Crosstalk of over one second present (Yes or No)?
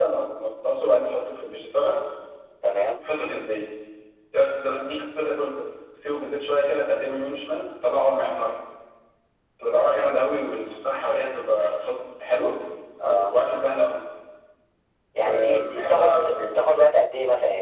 Yes